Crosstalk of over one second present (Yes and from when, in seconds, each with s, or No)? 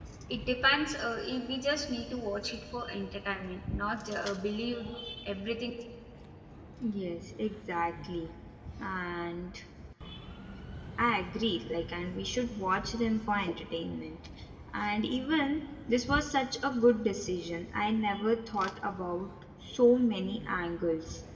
No